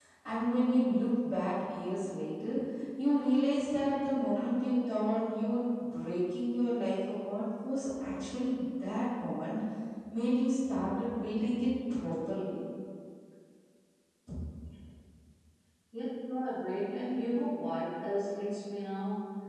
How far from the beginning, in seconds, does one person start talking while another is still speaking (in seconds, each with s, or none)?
none